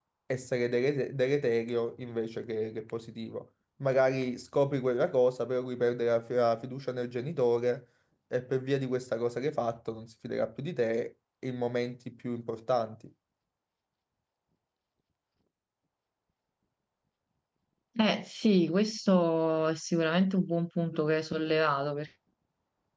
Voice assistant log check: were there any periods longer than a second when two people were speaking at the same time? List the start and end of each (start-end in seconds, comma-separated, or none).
none